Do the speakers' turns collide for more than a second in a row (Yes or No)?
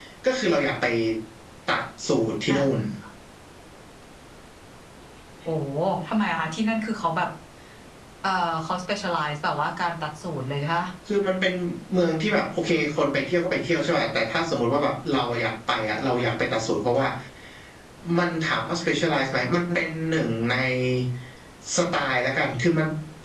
No